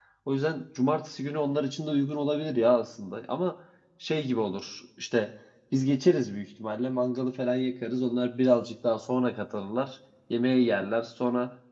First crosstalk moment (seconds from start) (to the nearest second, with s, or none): none